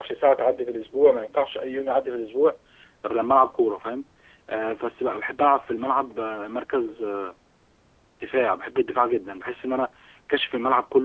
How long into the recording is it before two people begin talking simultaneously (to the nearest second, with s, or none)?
none